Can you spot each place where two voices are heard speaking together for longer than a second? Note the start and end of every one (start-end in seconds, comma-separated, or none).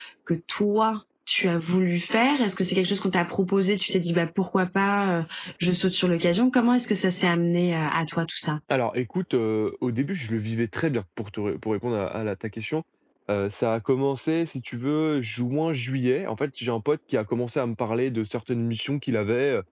none